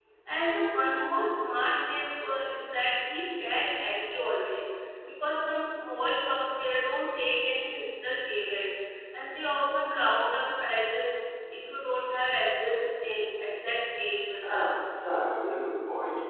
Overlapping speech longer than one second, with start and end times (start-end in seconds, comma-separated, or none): none